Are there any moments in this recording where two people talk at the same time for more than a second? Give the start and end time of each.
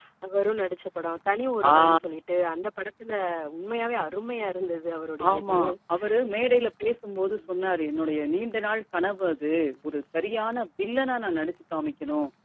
none

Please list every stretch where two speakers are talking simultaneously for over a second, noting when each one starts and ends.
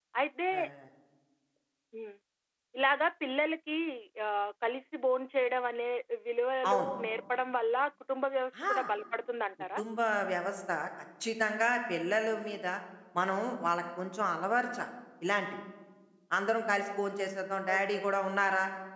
none

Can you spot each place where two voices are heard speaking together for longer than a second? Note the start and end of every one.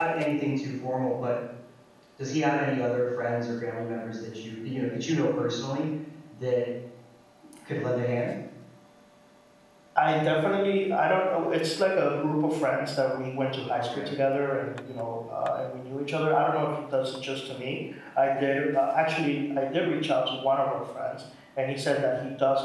none

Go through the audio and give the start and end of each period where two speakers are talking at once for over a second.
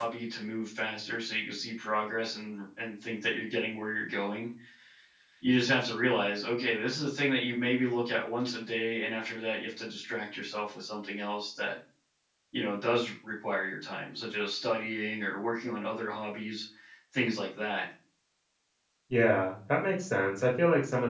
none

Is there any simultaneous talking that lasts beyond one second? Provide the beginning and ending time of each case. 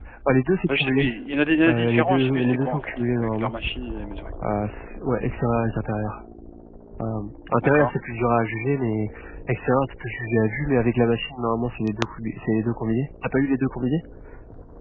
1.7-3.5

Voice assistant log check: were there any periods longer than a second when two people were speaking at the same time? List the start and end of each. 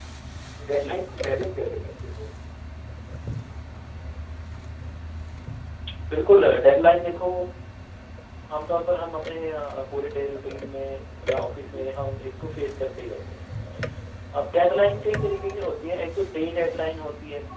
none

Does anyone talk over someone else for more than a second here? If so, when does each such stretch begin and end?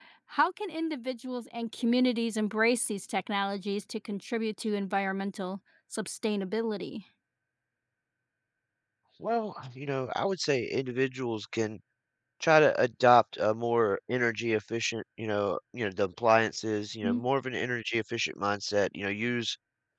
none

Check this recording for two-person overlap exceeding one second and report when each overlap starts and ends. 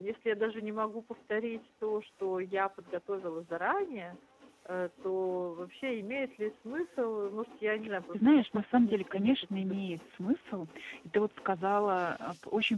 8.1-10.0

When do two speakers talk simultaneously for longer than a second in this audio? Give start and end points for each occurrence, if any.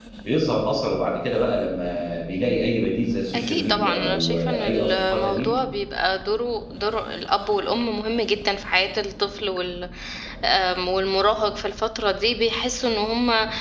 3.3-5.5

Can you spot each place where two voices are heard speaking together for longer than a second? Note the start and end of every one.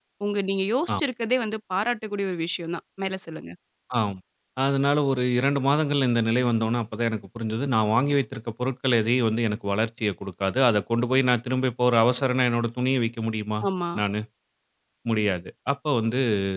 none

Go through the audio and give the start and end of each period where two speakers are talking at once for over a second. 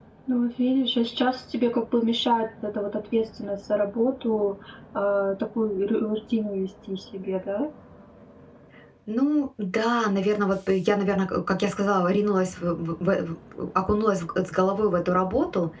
none

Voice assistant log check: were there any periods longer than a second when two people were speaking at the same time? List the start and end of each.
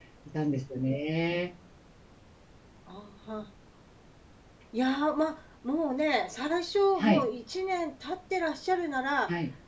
none

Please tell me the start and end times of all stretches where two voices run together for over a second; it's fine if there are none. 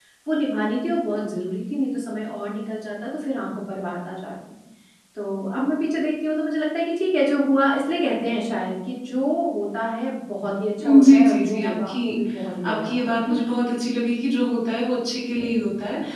10.8-12.1

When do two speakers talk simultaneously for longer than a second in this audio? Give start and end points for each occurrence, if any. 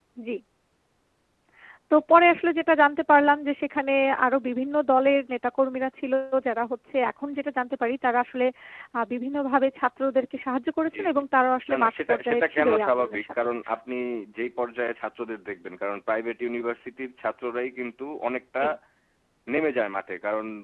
11.7-13.3

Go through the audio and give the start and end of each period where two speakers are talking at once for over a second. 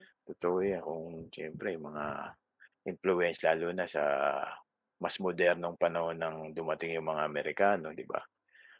none

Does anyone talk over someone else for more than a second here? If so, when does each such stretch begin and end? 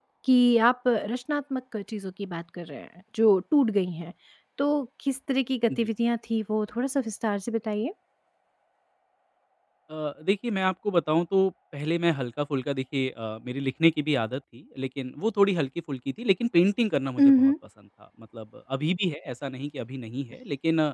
none

